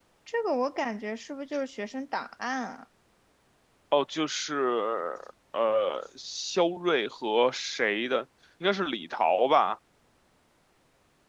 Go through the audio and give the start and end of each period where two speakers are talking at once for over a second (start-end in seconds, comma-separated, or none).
none